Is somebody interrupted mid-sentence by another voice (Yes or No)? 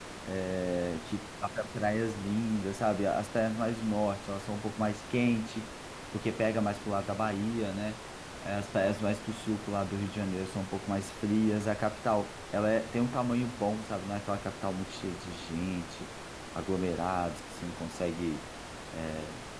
No